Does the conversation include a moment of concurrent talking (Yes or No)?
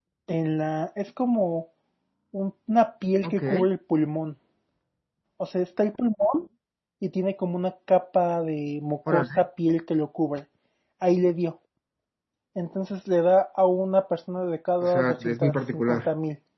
Yes